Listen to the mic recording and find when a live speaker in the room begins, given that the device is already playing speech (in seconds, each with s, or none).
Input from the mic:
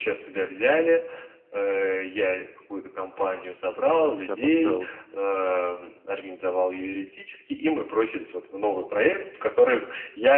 4.0 s